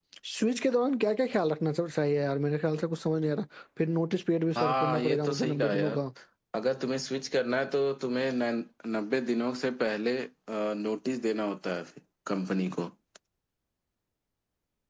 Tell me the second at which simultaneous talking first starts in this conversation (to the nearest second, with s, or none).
5 s